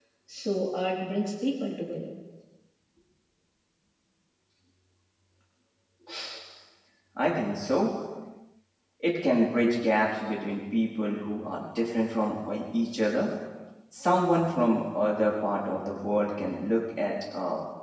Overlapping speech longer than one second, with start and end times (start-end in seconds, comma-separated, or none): none